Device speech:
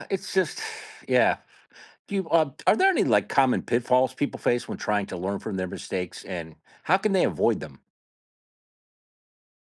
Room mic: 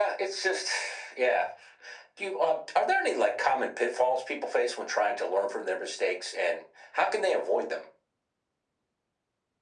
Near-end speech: none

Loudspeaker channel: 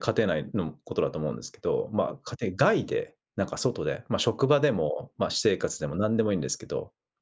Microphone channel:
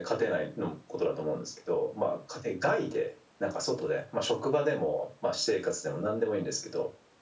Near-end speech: none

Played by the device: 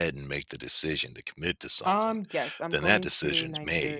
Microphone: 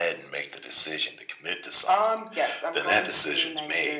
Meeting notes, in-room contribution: none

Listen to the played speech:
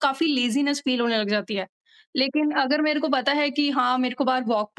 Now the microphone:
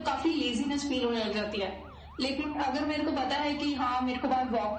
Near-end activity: none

